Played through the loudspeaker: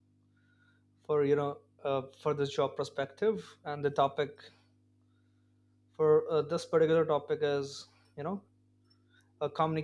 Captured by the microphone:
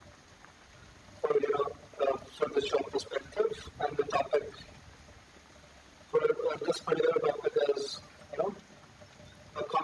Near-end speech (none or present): none